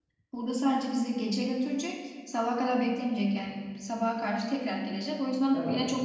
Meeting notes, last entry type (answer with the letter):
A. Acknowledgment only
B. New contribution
A